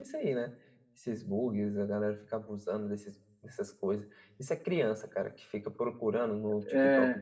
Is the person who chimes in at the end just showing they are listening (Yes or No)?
Yes